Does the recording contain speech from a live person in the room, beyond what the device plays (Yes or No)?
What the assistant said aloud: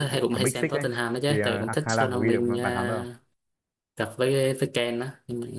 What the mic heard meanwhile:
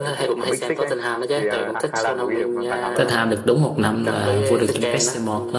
Yes